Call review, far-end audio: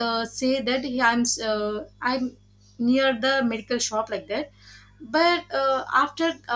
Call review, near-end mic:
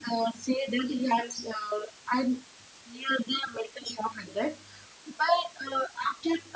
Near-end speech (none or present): none